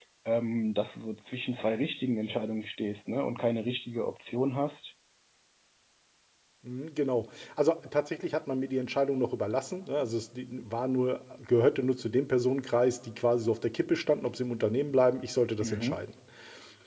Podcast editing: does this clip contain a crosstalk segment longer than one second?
No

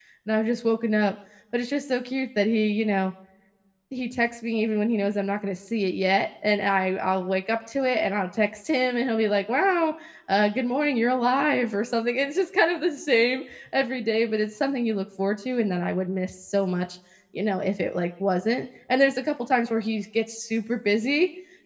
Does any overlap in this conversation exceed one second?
No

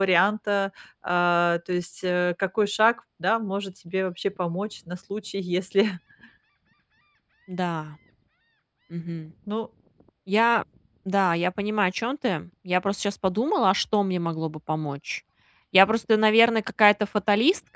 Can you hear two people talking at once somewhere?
No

